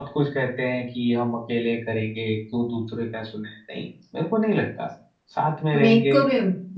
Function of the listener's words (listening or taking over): taking over